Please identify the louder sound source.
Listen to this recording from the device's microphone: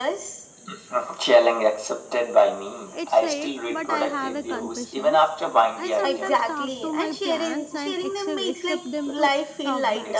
echo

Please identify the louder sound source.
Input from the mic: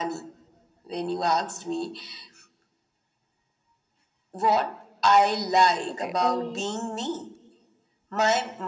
echo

